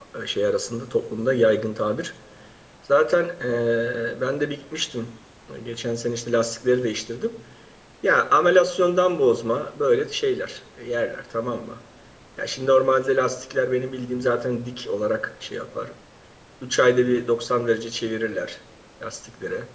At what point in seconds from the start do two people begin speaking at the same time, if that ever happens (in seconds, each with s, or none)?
none